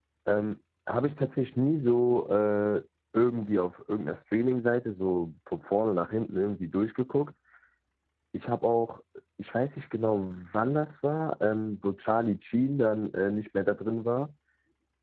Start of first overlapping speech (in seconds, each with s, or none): none